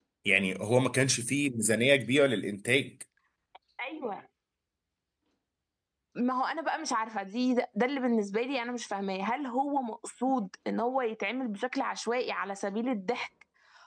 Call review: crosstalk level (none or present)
none